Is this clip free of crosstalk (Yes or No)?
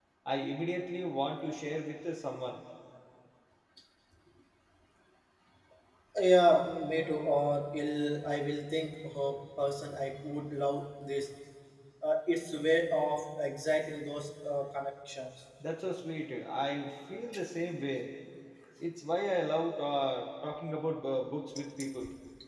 Yes